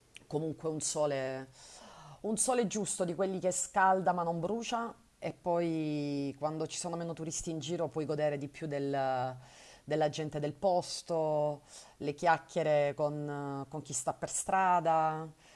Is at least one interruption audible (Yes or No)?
No